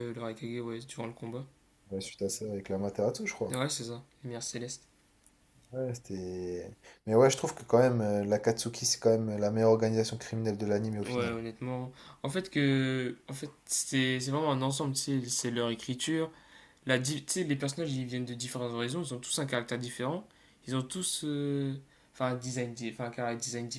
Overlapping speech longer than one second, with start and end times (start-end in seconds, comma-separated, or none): none